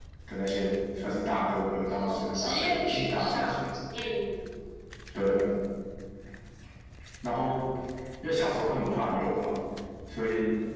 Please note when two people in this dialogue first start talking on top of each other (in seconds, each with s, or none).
1.9 s